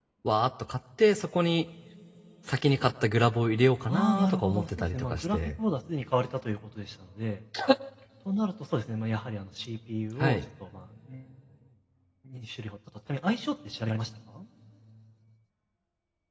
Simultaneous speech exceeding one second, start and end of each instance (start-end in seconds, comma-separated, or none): 3.9-5.4